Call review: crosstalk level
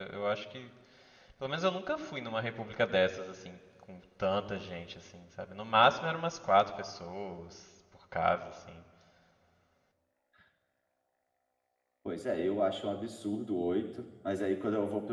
none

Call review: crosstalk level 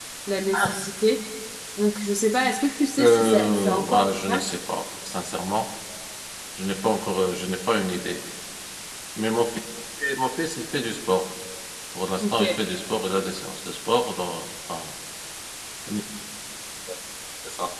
present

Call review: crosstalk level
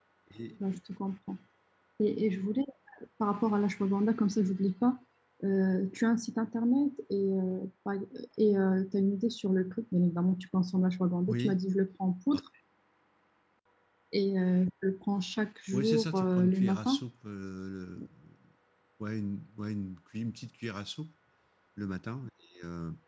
present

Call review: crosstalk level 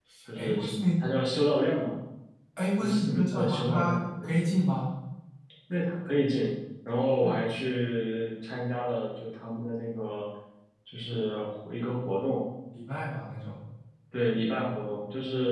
present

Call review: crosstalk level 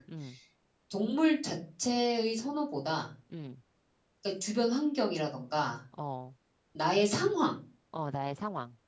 none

